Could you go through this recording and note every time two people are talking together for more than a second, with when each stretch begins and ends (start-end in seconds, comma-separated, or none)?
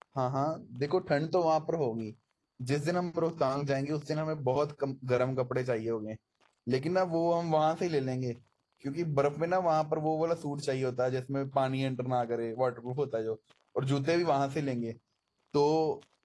none